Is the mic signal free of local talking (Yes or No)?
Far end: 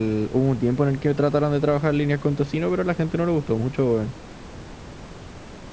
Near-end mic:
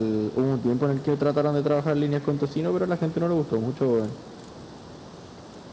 Yes